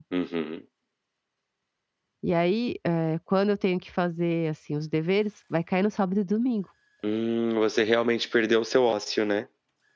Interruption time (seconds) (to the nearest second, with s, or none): none